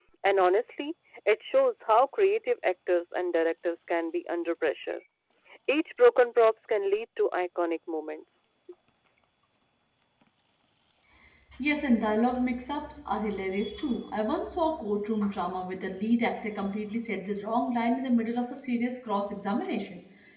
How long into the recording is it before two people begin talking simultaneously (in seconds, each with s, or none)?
none